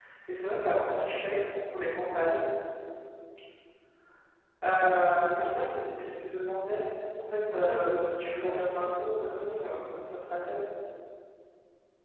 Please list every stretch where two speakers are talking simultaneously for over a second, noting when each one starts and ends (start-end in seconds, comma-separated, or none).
7.5-8.9